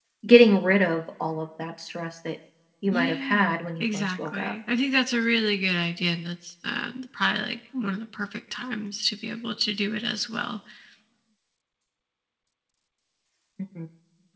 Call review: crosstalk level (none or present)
present